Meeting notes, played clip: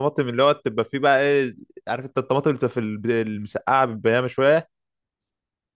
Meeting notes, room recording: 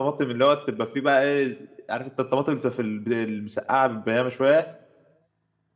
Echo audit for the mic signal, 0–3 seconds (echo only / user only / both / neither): echo only